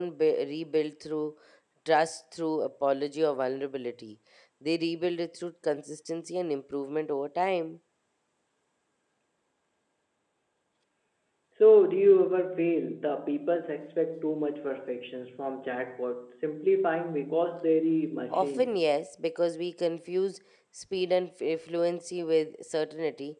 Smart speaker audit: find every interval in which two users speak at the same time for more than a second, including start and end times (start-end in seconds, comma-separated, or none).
none